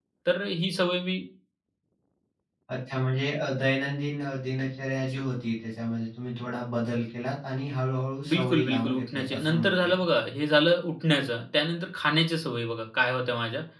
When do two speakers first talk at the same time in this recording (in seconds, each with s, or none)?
8.2 s